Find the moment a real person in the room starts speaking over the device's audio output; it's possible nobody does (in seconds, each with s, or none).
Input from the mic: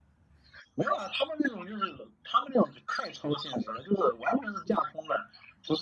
none